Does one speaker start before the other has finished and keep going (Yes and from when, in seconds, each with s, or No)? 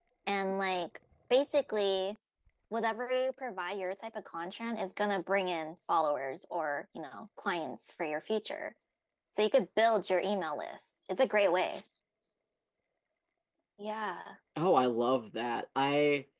No